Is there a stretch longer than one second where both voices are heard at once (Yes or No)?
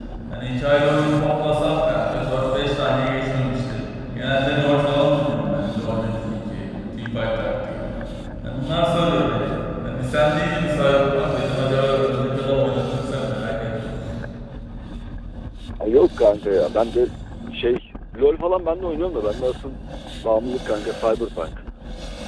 No